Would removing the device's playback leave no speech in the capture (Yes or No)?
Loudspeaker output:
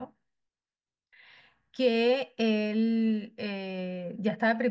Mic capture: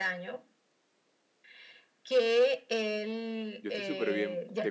No